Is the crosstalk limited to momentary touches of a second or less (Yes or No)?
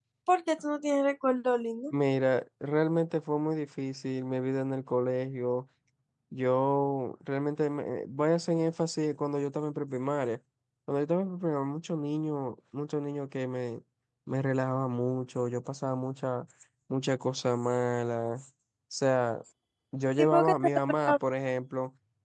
Yes